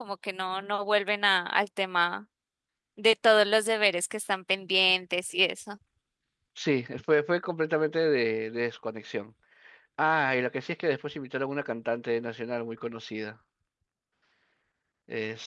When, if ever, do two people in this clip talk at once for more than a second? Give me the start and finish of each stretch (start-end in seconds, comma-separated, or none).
none